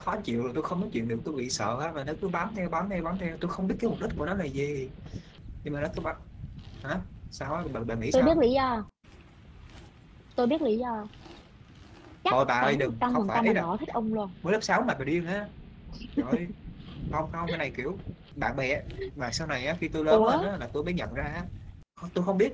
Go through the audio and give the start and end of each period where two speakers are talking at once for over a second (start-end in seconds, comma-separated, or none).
12.3-13.7